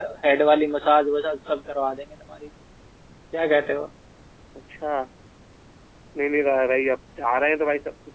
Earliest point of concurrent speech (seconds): none

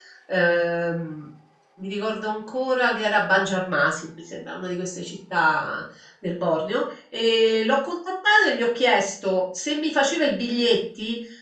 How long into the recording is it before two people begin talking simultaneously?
none

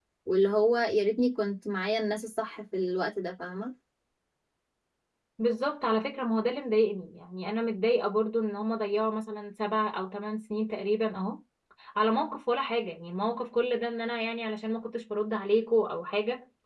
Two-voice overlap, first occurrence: none

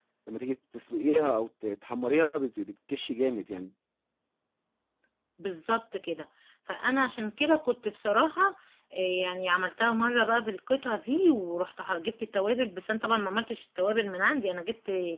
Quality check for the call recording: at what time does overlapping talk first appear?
none

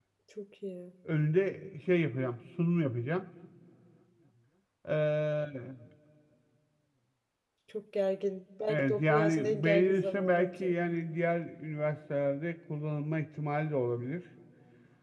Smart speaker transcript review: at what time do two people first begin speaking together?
8.7 s

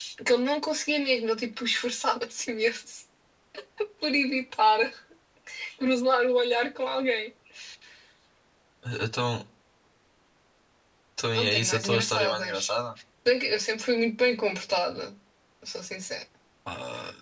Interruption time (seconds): 11.3 s

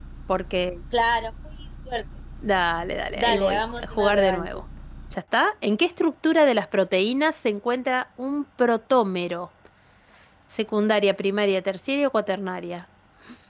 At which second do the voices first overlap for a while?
3.1 s

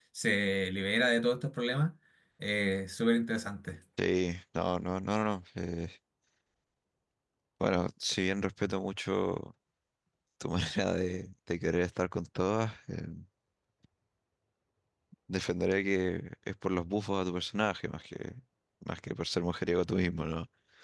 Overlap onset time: none

